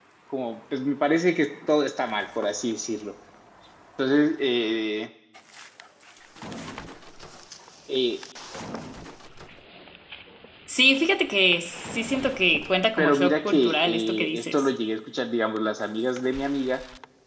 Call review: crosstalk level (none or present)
present